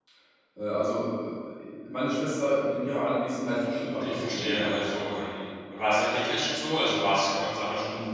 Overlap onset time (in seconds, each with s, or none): 4.0 s